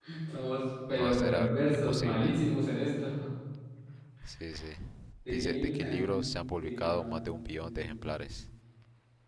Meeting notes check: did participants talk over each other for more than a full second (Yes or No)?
Yes